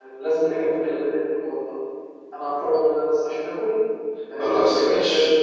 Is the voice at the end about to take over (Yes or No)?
Yes